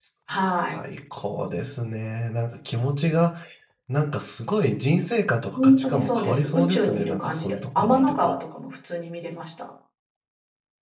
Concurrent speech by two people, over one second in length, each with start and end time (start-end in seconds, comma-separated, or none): 5.5-8.3